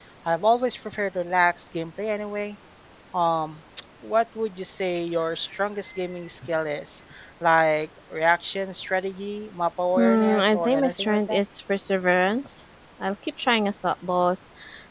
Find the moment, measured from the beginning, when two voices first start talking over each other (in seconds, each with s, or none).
10.0 s